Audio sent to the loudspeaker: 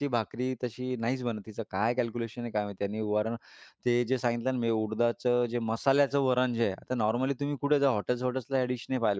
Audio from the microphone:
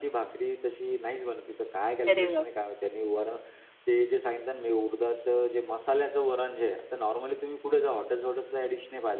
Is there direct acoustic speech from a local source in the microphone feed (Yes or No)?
Yes